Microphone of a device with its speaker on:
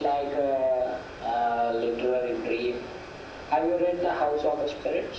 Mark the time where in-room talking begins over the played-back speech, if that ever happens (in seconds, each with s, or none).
none